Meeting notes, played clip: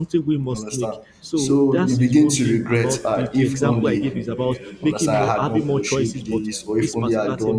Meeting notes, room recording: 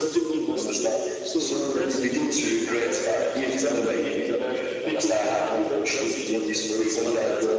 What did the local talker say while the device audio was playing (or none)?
none